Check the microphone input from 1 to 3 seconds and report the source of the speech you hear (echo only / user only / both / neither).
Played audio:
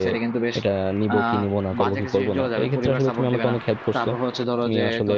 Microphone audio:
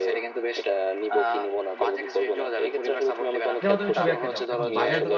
echo only